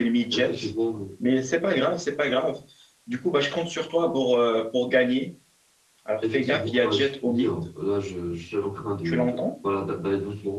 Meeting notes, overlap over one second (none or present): present